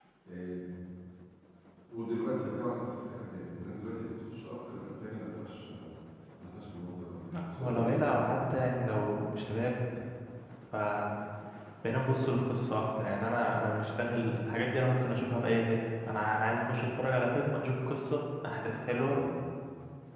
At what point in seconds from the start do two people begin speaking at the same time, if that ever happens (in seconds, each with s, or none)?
7.3 s